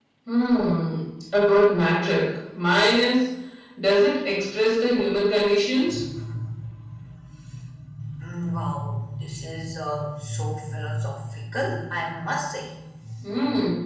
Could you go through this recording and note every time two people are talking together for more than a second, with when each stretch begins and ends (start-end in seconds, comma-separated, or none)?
none